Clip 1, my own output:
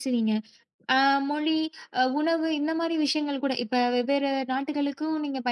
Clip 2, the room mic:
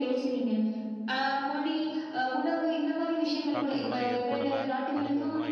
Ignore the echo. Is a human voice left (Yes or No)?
Yes